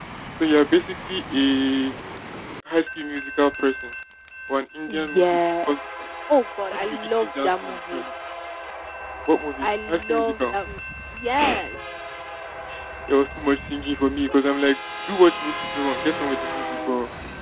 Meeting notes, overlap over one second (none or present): present